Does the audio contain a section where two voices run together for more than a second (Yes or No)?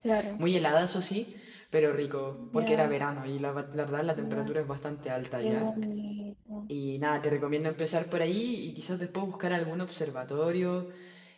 No